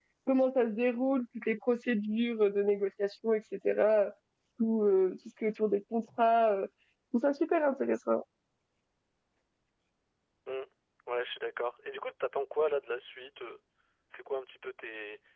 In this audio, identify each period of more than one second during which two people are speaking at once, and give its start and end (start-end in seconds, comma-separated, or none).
none